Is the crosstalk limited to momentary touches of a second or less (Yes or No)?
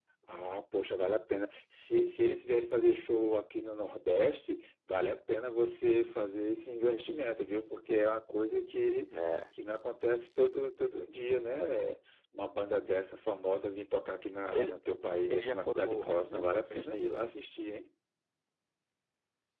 No